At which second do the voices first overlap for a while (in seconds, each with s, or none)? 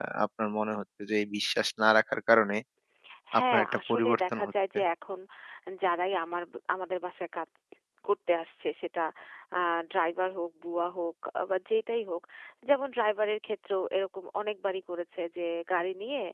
3.4 s